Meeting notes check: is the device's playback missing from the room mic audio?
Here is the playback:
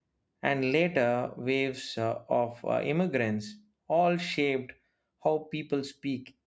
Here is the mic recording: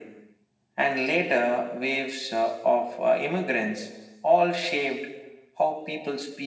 No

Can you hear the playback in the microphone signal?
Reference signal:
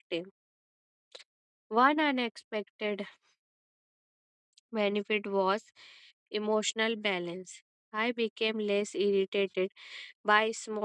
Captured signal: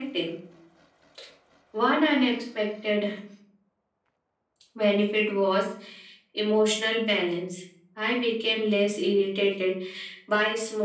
Yes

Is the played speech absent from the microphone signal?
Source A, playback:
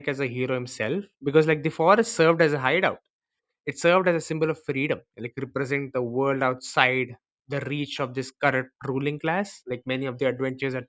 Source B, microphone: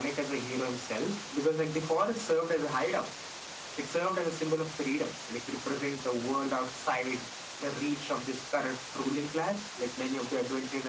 No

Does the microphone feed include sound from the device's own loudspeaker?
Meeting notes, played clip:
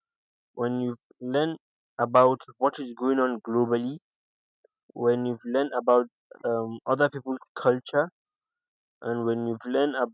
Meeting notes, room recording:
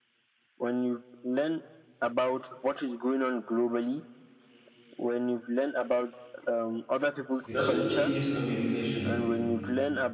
Yes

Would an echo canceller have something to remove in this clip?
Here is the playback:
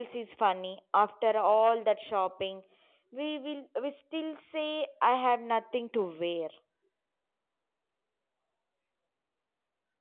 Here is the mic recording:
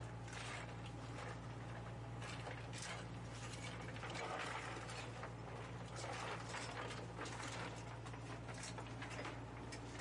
No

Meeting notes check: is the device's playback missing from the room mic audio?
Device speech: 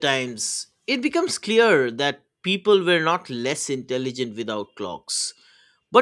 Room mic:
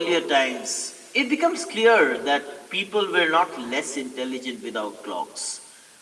No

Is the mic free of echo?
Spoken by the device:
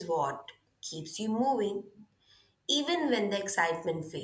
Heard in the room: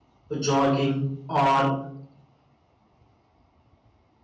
Yes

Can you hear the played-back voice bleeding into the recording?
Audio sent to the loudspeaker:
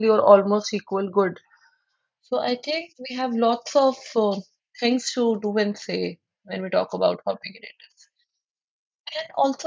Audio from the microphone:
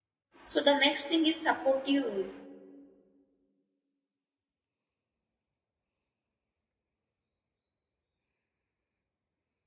No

